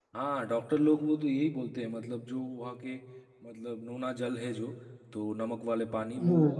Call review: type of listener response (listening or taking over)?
listening